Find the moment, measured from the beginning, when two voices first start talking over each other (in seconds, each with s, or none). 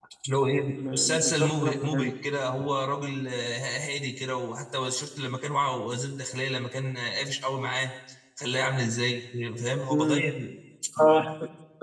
0.7 s